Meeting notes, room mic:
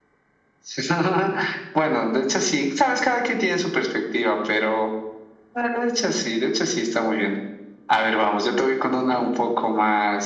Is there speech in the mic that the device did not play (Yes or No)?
No